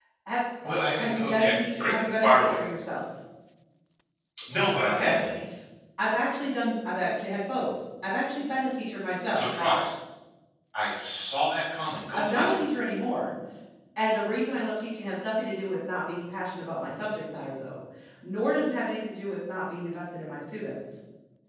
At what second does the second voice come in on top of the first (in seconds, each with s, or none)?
1.0 s